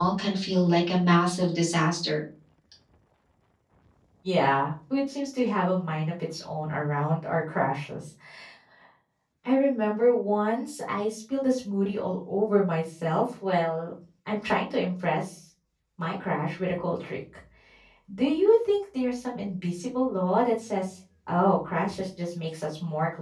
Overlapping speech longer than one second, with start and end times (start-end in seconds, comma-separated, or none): none